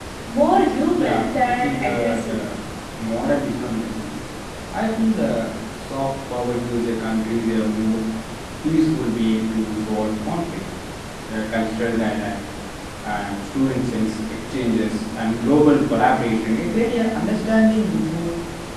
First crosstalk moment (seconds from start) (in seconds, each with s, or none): 1.0 s